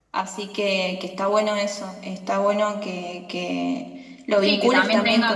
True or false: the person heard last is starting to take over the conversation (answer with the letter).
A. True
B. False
A